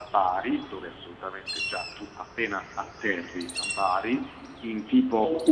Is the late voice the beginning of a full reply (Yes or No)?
No